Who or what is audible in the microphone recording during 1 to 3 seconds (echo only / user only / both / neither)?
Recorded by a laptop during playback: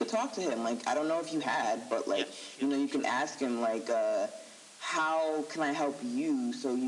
both